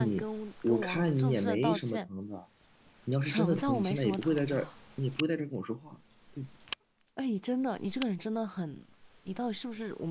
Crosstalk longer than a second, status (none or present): present